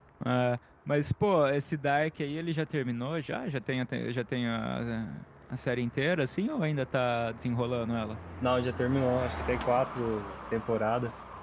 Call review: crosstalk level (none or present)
none